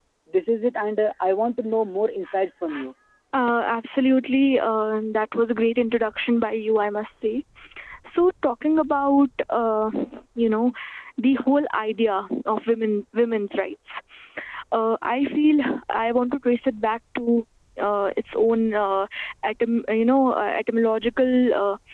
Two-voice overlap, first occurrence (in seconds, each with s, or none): none